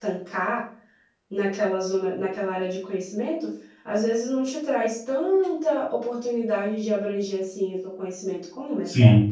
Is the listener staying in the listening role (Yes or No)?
No